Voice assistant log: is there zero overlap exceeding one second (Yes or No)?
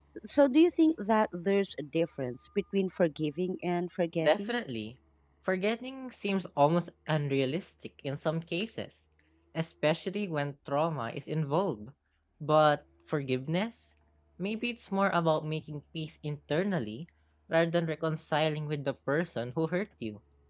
Yes